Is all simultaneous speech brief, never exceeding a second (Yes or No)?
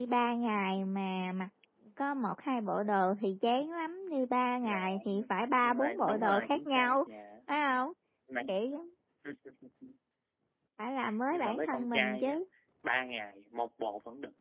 No